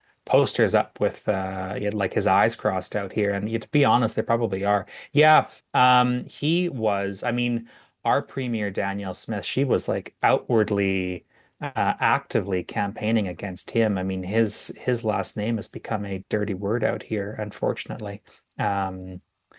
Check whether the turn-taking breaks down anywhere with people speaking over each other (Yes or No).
No